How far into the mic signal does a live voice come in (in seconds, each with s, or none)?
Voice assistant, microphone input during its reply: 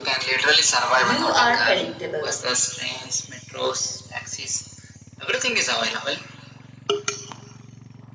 1.0 s